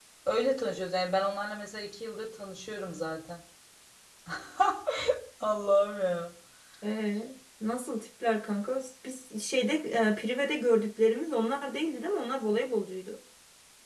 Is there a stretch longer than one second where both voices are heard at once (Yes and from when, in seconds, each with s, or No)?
No